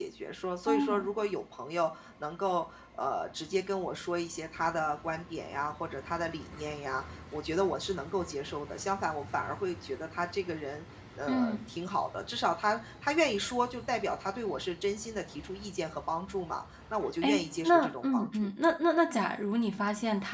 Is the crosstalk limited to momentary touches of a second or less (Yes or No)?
No